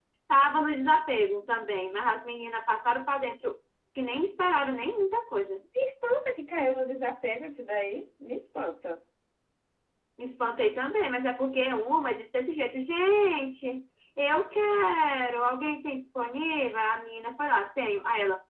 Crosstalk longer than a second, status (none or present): none